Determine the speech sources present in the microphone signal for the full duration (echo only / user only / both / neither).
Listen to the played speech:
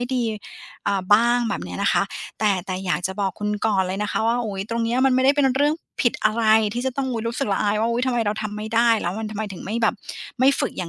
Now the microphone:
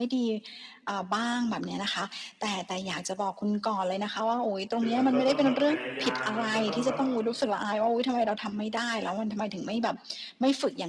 both